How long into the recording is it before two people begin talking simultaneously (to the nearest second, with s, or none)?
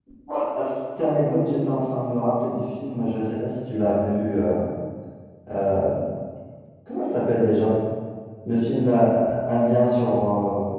none